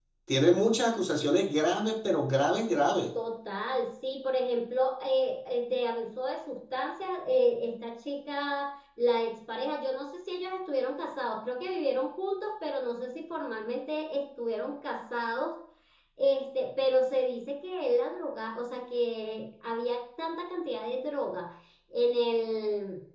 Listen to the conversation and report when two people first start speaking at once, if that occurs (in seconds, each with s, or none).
none